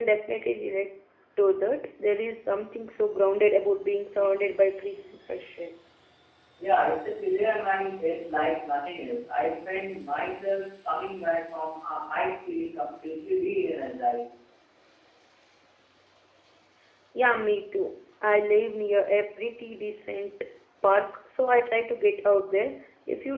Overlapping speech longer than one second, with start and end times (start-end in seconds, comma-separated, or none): none